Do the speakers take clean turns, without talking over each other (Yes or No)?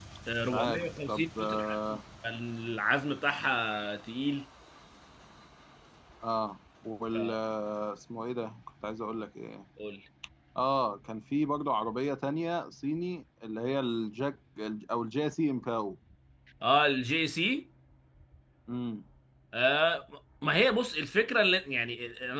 No